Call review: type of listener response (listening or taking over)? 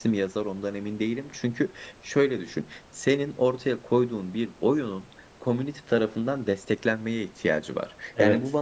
listening